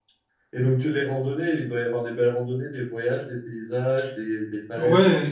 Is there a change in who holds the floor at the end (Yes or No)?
Yes